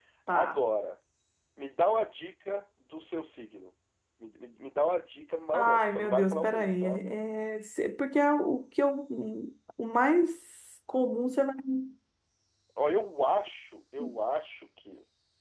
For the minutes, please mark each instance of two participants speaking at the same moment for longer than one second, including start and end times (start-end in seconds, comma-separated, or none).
5.5-7.0